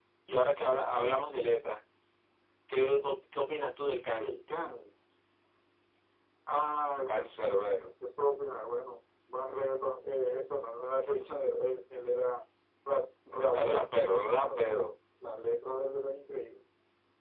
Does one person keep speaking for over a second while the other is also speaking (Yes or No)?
Yes